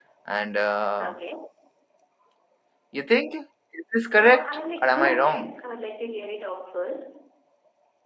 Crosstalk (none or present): present